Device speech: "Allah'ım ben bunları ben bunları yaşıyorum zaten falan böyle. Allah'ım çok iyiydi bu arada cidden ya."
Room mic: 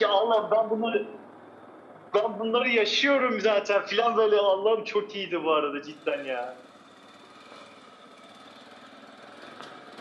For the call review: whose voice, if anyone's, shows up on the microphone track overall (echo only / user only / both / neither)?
echo only